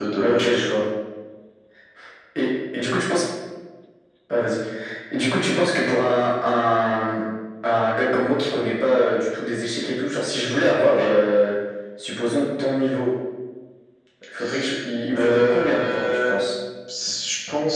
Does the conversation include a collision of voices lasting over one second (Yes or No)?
Yes